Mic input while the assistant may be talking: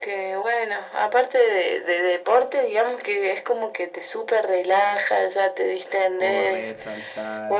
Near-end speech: present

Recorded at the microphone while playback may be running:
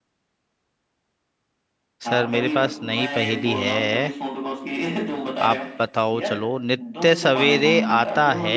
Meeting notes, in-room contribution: present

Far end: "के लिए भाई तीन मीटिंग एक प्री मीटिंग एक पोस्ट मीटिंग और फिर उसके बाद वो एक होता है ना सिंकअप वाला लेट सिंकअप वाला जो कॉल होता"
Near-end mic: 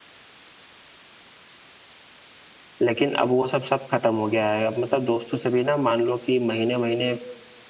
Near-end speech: present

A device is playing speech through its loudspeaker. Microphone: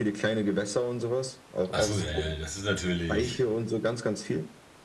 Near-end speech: present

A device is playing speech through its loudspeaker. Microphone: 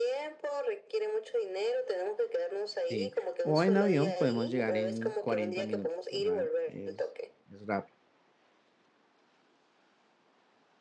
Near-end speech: present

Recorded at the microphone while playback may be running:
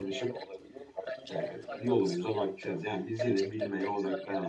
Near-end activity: present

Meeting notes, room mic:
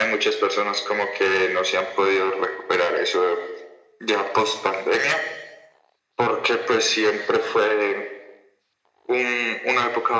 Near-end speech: none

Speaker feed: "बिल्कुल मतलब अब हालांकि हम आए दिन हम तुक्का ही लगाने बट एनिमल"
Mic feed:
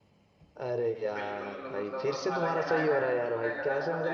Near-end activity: present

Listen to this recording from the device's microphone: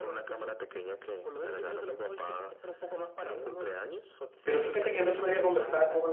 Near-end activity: present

